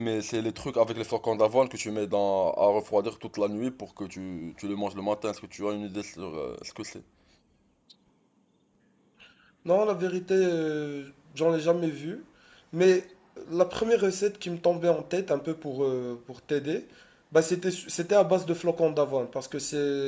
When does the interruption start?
none

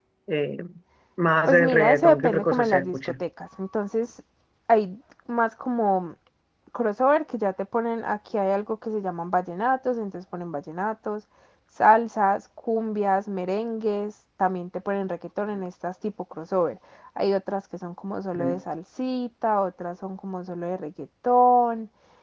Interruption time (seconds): 1.5 s

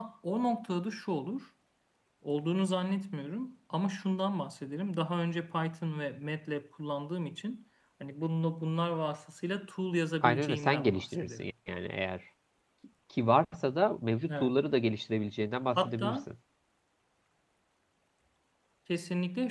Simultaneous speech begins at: 10.2 s

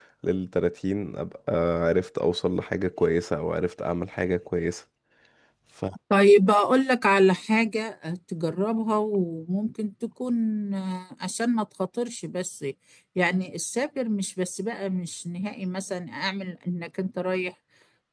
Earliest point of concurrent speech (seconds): none

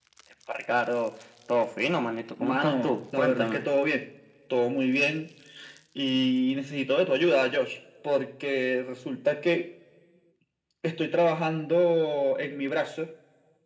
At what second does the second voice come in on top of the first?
2.4 s

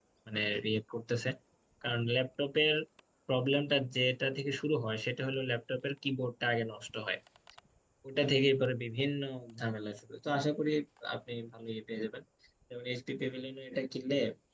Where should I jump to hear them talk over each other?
none

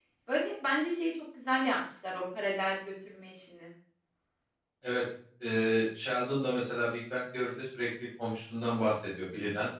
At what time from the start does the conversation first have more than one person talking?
none

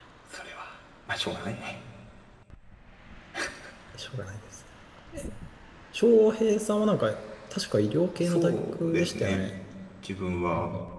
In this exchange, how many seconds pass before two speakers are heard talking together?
8.2 s

